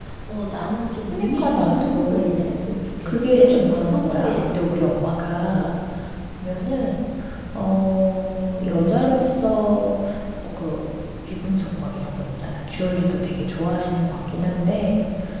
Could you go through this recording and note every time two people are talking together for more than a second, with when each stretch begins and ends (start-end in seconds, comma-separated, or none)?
1.1-2.5, 3.0-4.4